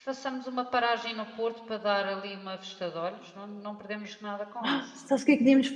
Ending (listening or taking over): taking over